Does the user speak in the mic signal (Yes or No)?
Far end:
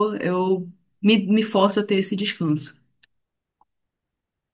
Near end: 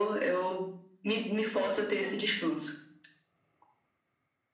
Yes